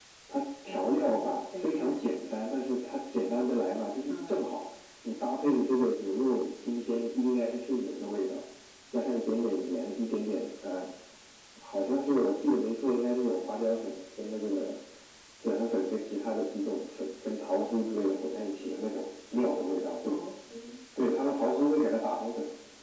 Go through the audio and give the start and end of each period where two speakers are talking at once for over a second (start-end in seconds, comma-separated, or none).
0.7-2.1